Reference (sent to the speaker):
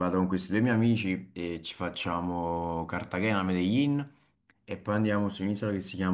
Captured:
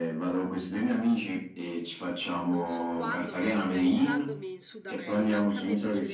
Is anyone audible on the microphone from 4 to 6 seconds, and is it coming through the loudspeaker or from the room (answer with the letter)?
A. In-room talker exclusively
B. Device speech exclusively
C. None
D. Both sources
D